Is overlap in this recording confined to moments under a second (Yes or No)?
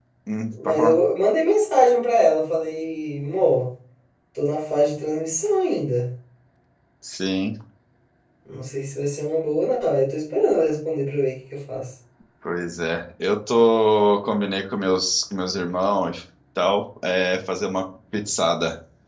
Yes